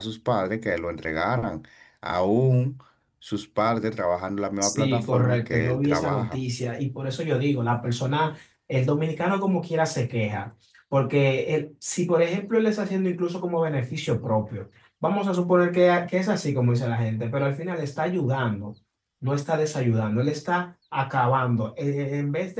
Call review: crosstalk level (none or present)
present